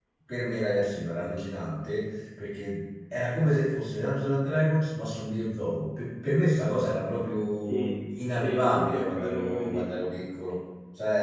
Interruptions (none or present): present